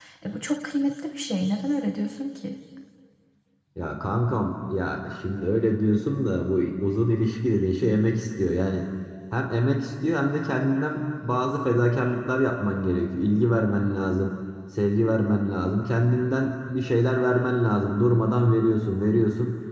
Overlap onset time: none

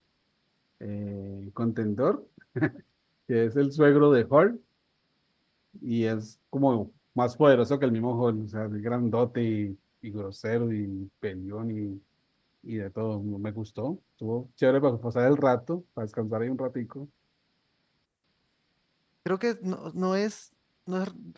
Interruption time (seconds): none

